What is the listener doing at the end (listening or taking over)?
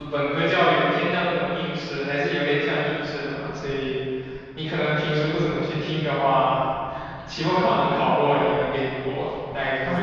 taking over